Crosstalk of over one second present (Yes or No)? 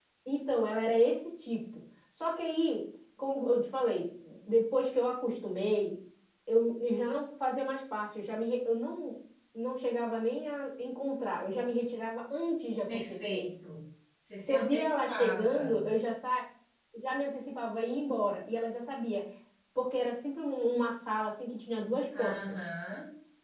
Yes